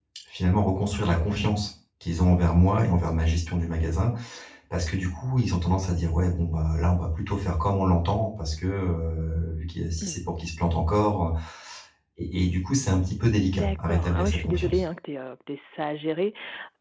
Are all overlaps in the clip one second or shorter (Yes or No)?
No